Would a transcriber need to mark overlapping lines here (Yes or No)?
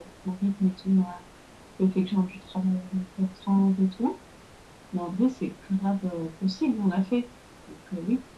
No